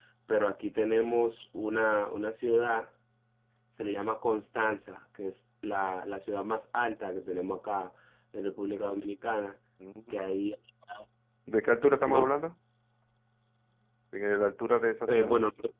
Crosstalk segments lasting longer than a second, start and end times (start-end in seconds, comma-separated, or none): none